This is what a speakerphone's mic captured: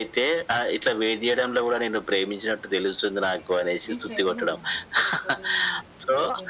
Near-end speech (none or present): present